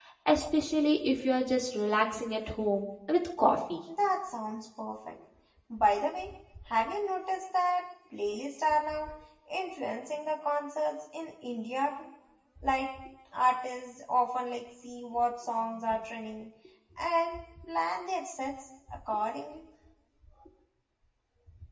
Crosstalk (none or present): none